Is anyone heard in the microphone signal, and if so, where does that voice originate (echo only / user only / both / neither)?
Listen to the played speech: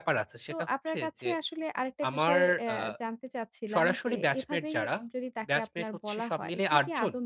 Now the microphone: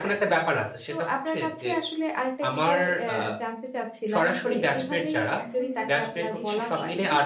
both